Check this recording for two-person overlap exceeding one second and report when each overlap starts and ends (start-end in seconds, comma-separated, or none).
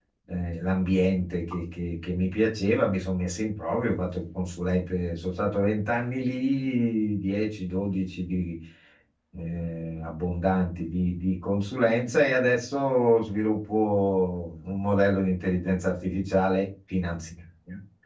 none